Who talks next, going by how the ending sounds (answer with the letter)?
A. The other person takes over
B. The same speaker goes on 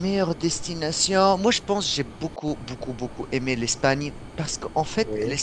B